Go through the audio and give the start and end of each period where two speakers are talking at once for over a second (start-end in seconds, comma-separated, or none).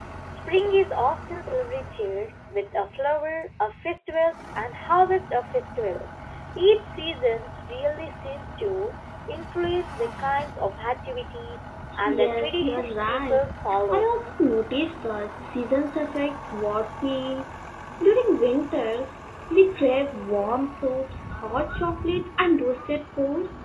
12.1-13.4